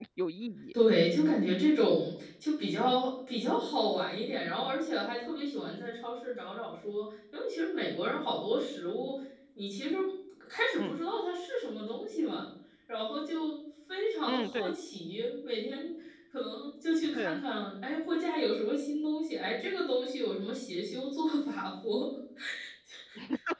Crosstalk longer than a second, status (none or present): none